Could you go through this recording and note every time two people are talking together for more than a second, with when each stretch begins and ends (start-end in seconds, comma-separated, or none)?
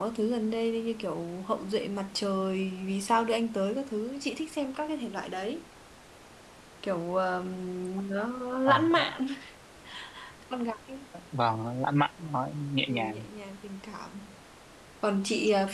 none